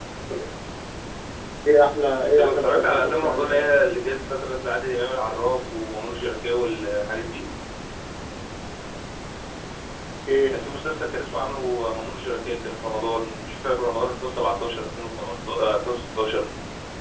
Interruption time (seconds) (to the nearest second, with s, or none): 2 s